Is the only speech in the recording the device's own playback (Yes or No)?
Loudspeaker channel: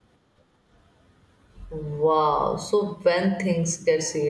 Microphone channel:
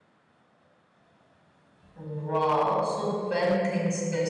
Yes